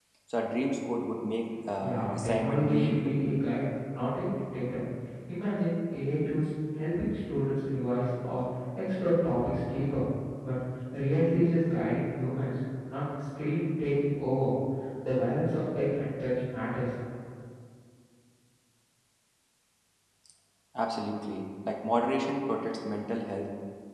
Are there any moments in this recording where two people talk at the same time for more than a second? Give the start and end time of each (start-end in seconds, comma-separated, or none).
1.8-3.2